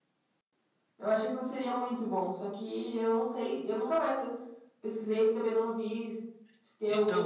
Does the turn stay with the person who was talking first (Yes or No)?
No